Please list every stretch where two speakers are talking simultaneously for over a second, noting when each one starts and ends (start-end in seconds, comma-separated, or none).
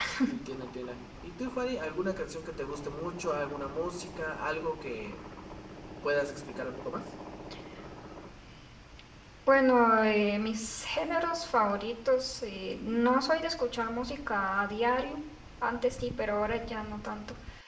none